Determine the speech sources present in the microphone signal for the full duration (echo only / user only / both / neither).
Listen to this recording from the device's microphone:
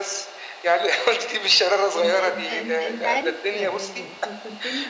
both